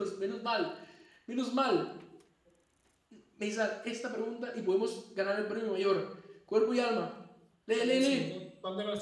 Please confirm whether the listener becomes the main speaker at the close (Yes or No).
Yes